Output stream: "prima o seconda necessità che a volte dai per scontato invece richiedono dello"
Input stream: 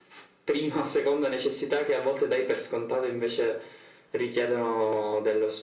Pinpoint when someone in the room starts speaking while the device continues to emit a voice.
none

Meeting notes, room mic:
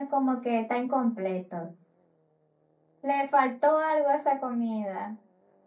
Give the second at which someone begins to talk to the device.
none

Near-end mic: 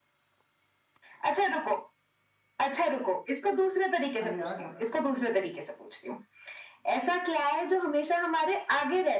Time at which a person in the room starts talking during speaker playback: 4.2 s

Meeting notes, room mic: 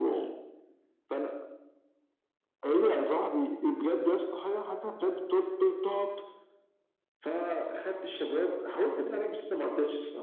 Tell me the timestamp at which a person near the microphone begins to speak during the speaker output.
none

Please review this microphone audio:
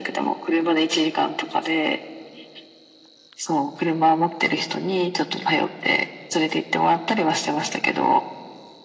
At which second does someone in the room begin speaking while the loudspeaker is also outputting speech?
none

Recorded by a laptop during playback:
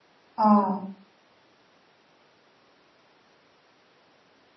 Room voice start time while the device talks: 0.4 s

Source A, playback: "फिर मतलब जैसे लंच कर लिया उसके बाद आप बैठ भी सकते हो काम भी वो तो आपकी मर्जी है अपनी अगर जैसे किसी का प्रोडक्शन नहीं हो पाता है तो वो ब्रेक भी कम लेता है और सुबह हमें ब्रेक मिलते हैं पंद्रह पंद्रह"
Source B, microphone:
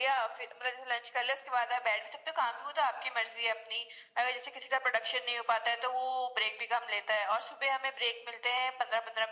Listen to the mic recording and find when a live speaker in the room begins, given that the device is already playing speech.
none

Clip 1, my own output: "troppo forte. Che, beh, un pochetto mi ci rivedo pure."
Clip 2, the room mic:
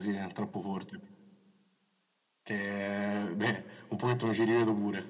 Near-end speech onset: none

